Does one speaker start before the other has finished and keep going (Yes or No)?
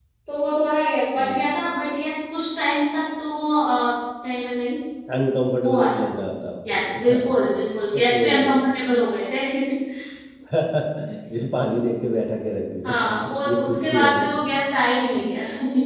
Yes